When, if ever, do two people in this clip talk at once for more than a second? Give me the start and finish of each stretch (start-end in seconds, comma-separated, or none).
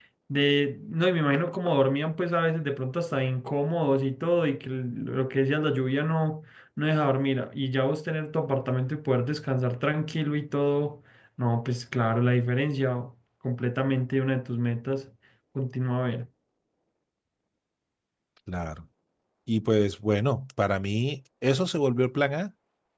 none